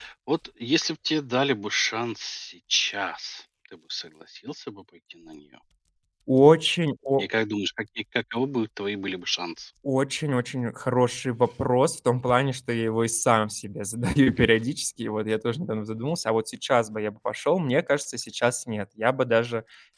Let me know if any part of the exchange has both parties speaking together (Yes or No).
No